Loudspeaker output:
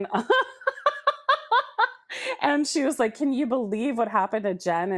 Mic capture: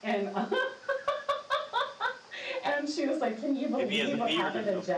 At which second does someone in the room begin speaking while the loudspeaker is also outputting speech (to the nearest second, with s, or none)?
4 s